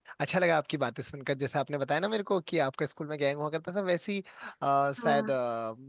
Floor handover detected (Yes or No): No